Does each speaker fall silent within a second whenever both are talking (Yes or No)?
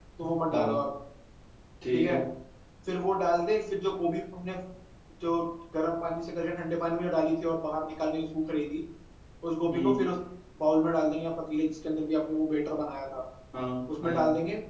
Yes